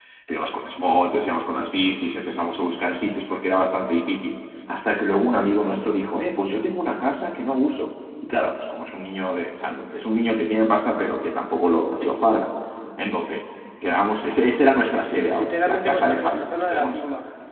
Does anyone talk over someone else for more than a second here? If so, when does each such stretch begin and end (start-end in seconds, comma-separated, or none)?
15.0-16.5